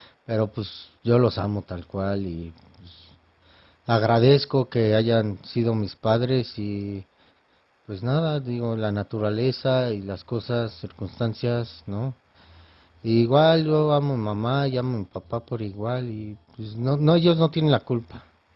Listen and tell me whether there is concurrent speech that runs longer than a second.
No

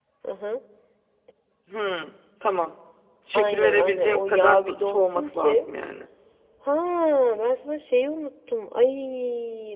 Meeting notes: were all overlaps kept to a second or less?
No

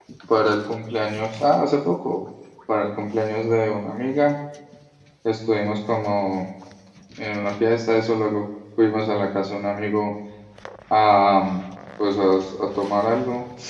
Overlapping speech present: No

